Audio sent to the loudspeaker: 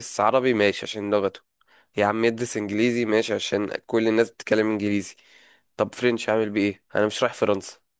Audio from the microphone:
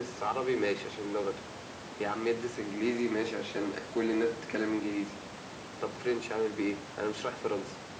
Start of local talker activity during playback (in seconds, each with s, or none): none